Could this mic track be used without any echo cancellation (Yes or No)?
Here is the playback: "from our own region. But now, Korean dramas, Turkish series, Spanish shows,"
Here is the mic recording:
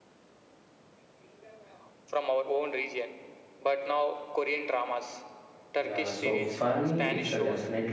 No